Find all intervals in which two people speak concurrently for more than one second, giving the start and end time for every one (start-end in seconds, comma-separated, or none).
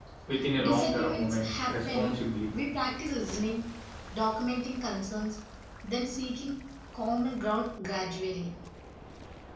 0.6-2.1